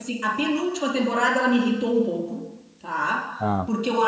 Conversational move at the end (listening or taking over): listening